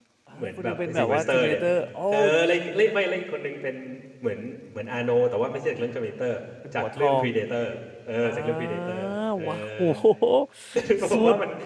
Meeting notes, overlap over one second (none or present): present